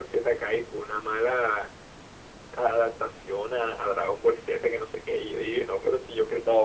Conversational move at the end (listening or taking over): taking over